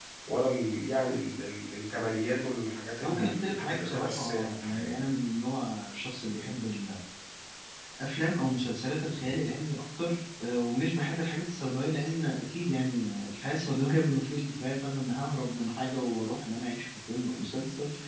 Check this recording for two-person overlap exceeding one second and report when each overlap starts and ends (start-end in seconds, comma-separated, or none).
3.0-5.0